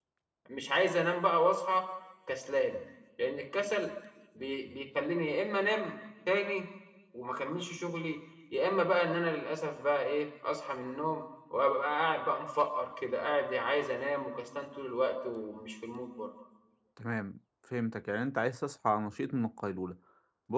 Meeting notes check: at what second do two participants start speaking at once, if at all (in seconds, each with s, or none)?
none